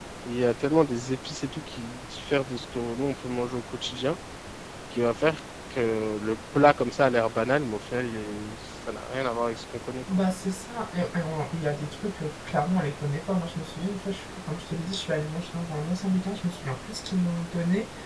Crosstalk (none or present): none